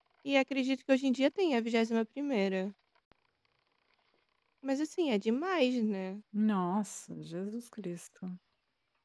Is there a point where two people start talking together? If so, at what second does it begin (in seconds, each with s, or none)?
none